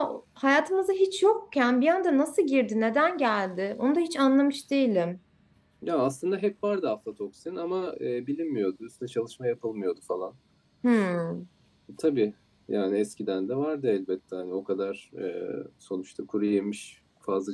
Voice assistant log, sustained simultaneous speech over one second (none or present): none